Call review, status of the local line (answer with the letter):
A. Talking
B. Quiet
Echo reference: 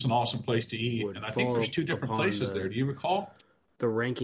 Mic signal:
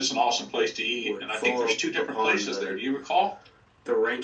B